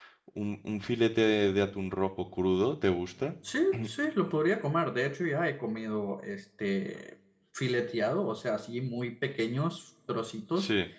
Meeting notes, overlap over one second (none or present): none